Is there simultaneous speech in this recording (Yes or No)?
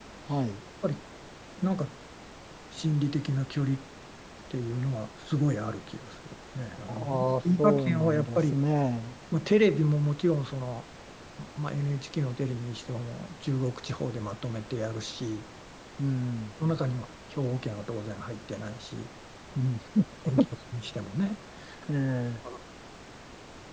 Yes